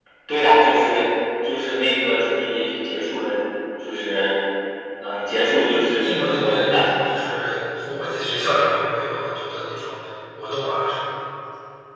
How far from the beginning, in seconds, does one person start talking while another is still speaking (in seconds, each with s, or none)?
5.3 s